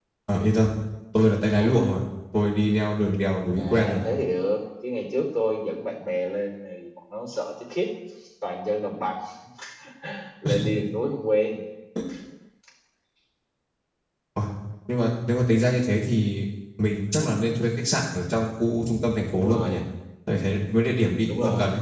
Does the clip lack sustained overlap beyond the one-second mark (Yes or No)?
Yes